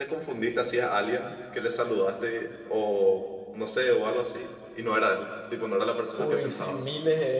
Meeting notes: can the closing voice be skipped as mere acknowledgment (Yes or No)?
No